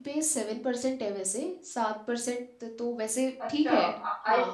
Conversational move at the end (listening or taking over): taking over